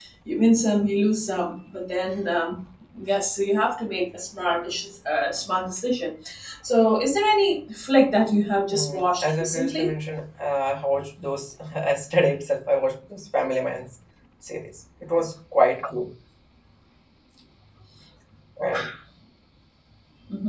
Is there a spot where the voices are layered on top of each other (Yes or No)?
Yes